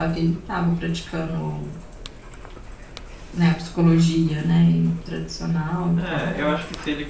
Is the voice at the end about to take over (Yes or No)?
Yes